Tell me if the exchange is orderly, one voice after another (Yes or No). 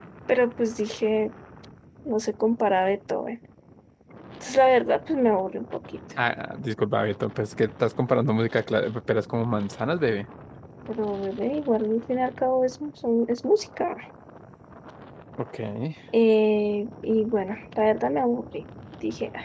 Yes